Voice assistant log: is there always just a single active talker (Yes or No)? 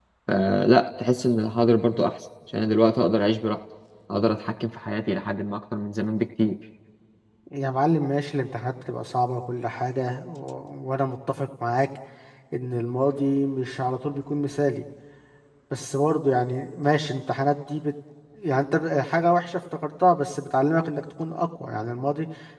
Yes